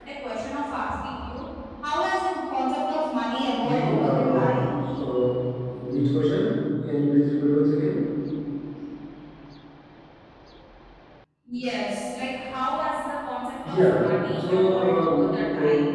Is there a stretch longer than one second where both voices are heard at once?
Yes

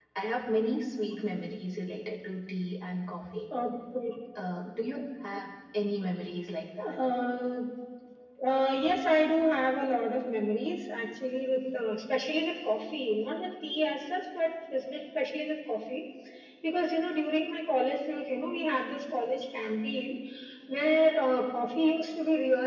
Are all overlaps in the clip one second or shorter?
Yes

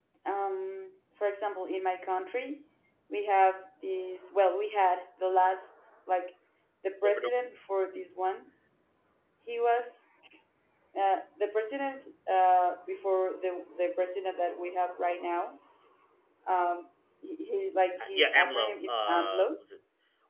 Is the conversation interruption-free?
No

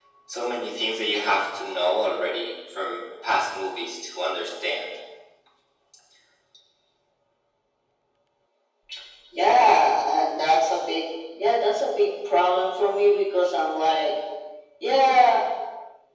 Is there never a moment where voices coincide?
Yes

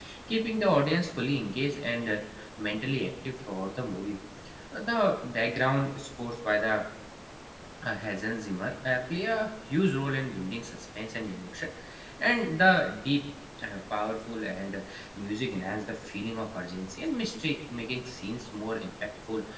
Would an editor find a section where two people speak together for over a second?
No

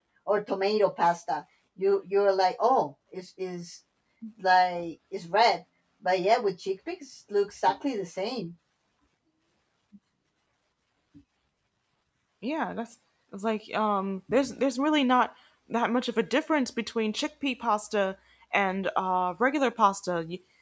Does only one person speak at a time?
Yes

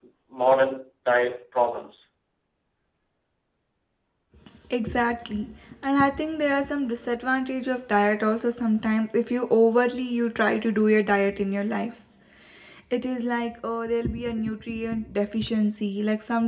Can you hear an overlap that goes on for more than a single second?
No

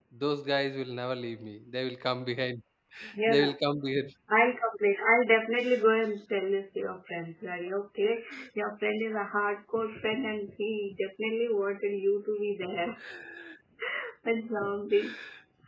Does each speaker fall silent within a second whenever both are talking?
Yes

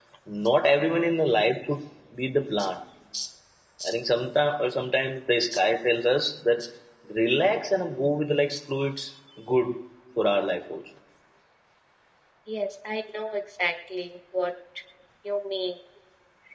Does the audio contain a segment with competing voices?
No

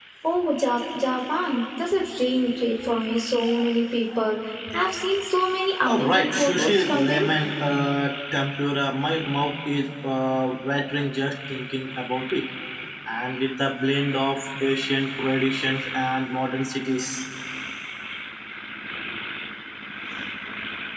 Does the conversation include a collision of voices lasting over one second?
Yes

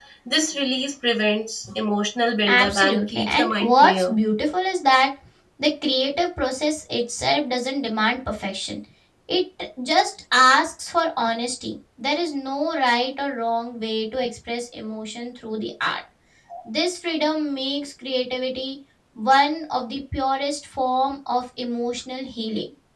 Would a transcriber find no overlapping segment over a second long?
No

